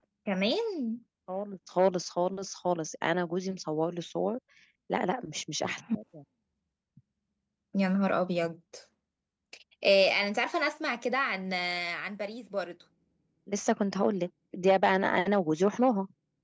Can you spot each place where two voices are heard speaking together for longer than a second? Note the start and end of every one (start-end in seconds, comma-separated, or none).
none